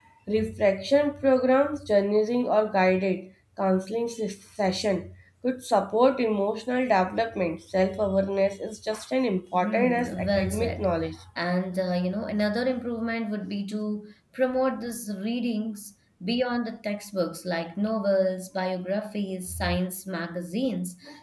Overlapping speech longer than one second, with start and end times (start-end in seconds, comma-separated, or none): 9.5-10.9